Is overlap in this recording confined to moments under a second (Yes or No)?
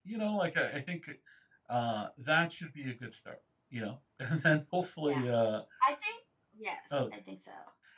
Yes